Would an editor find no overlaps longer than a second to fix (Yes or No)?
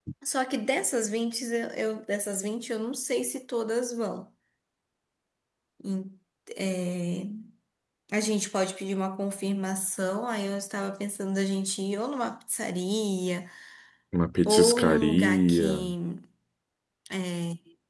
No